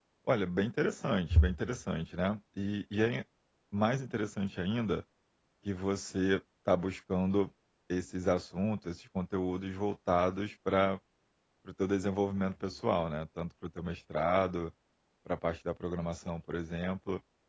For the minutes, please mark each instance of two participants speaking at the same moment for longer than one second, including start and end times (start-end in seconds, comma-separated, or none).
none